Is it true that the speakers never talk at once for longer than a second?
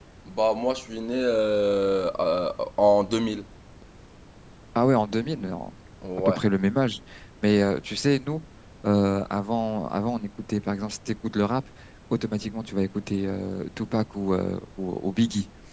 Yes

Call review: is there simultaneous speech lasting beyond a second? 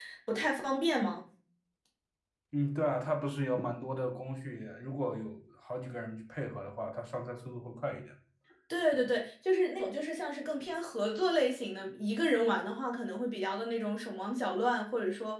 No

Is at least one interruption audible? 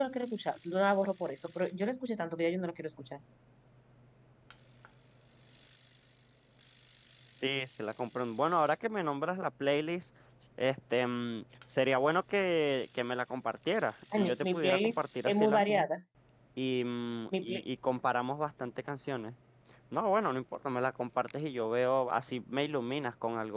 Yes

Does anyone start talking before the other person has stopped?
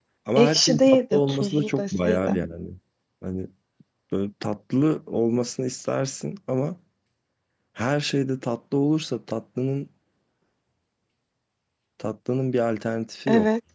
Yes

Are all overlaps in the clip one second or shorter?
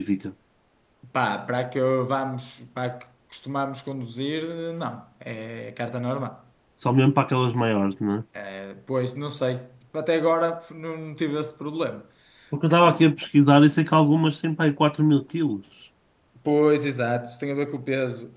Yes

